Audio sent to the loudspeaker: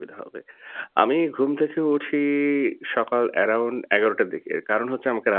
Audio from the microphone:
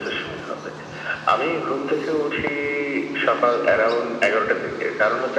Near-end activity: none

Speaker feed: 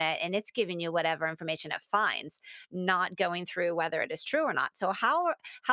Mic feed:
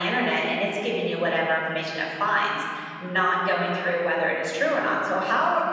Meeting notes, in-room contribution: none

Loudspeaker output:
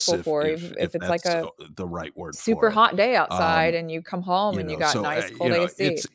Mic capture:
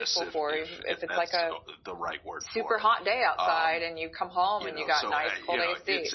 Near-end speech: none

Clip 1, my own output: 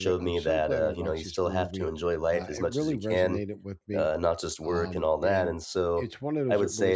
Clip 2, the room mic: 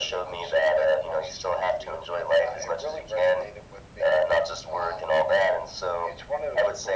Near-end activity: none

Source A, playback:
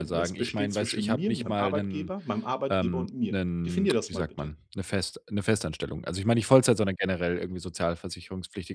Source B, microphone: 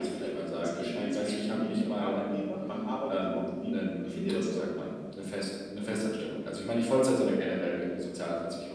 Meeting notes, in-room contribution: none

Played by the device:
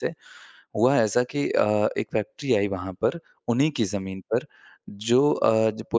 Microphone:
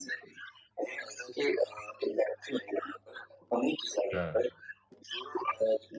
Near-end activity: present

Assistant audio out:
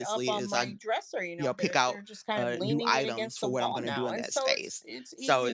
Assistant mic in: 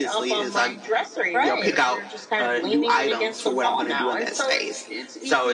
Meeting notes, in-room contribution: present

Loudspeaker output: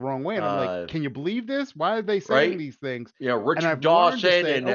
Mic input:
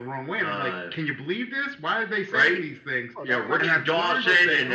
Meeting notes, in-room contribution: present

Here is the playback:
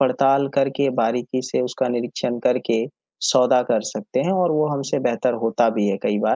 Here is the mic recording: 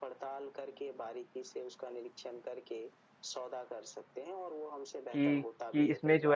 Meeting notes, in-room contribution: present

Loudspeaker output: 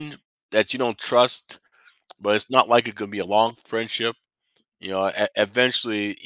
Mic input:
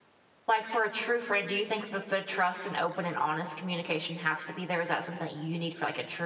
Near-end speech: present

